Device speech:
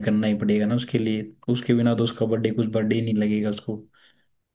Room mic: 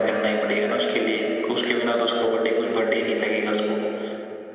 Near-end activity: none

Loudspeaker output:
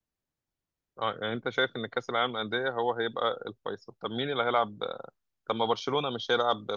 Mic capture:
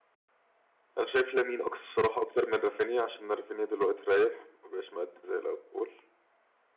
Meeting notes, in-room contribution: present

